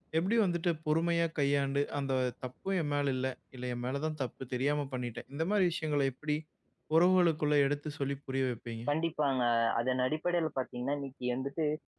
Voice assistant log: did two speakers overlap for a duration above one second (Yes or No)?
No